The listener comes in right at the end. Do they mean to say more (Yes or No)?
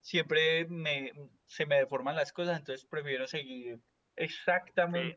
Yes